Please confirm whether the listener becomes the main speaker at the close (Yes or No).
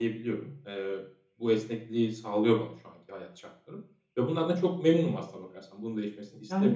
Yes